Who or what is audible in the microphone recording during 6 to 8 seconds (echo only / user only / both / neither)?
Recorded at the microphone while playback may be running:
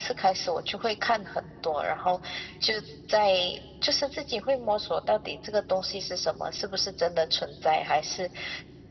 echo only